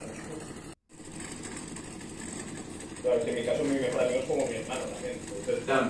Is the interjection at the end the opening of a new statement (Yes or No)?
Yes